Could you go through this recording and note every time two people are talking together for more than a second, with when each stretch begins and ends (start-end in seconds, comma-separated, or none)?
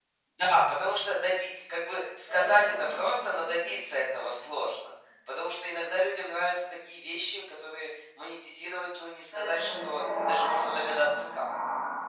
9.3-11.0